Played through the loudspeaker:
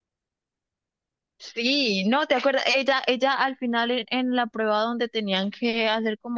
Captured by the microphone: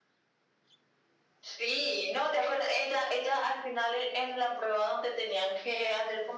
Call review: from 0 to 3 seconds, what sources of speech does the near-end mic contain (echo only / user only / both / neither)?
echo only